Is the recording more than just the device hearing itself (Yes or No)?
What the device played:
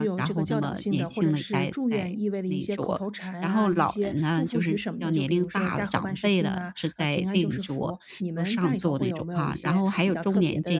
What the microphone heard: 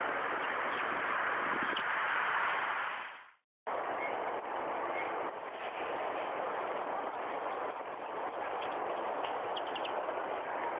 No